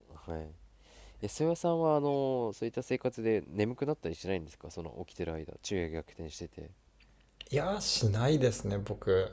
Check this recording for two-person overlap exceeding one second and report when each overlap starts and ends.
none

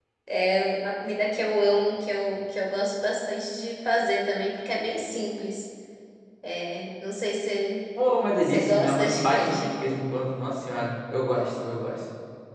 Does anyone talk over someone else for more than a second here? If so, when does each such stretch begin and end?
8.5-9.9

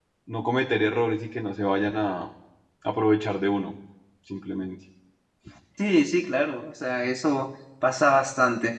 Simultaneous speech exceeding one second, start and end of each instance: none

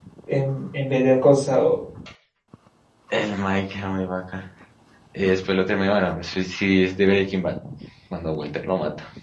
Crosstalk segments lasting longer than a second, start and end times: none

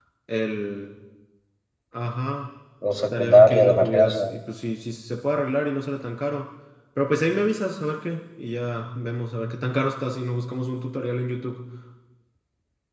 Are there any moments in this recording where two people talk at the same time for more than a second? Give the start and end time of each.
3.1-4.3

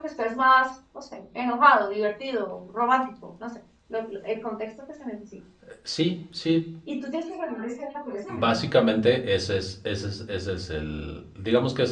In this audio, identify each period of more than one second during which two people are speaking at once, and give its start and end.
none

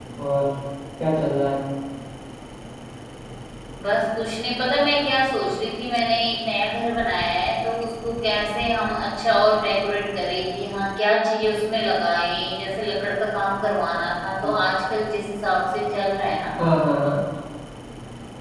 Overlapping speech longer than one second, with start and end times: none

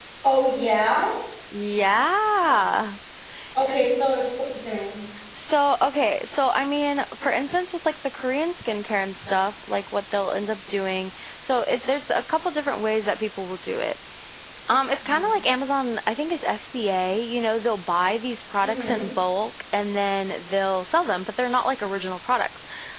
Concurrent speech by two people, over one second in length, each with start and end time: none

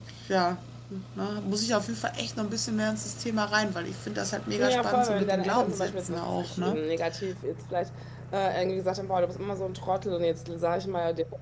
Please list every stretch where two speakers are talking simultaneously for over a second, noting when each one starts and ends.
4.6-6.8

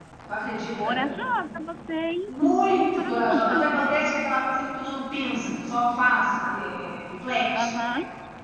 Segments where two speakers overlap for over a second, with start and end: 2.3-3.6

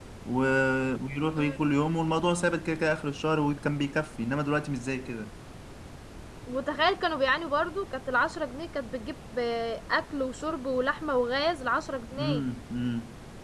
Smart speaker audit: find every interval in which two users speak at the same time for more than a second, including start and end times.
none

